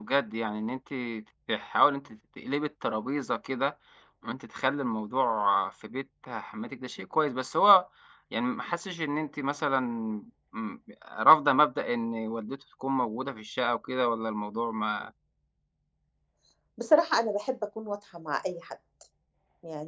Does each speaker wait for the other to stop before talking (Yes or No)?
Yes